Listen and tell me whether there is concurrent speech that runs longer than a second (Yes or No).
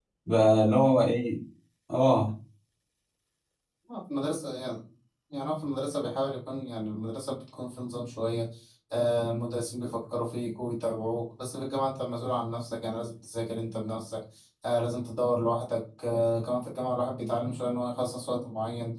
No